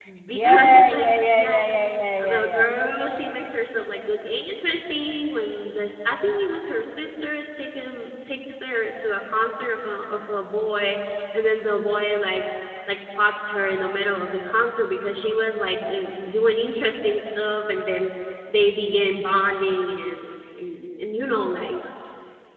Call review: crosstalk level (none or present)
present